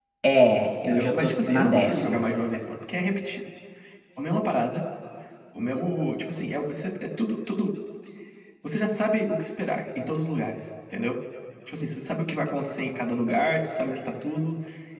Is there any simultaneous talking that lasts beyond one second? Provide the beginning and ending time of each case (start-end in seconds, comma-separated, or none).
0.9-2.2